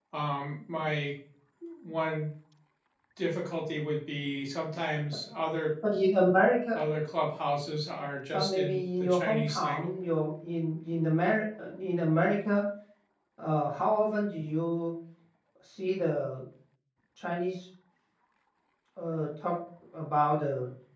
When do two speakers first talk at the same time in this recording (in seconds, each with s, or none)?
8.3 s